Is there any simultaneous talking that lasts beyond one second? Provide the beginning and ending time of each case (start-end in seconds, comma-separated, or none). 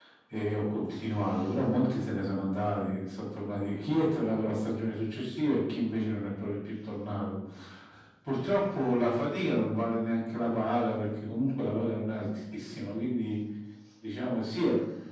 none